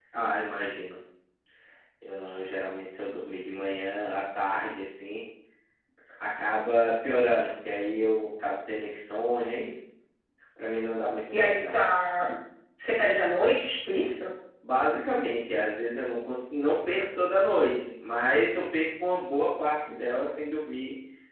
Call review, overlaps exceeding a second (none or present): none